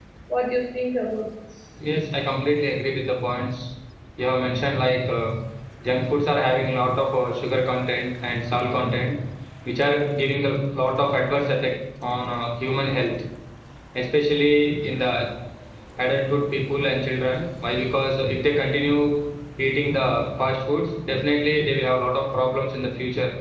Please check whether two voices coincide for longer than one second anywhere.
No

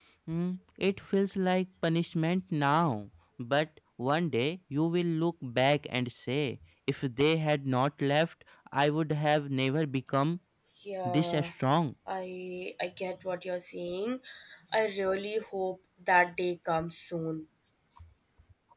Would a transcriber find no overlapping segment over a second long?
Yes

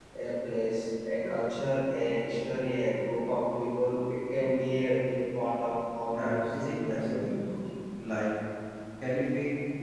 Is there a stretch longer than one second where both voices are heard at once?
Yes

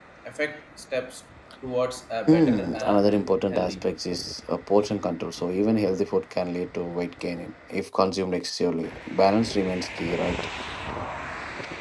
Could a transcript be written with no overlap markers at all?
No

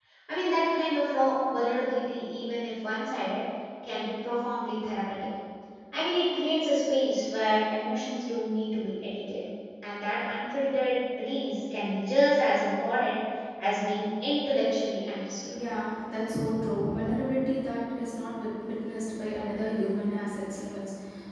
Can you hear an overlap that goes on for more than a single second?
No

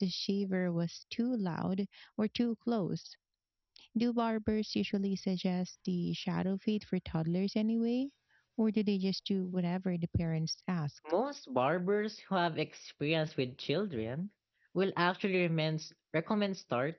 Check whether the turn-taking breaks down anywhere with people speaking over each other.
No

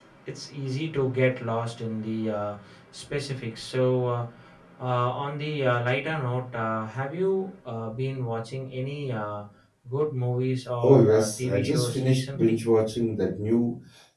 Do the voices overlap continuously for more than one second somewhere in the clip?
Yes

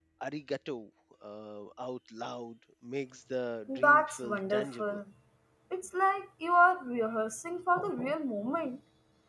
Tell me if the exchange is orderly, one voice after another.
No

